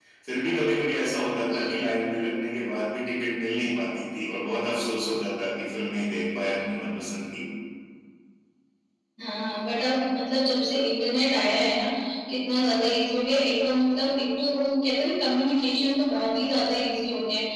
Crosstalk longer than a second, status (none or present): none